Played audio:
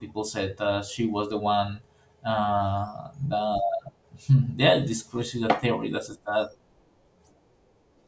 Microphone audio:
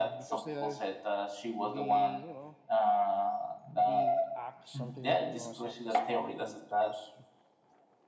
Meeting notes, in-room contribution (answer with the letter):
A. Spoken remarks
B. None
A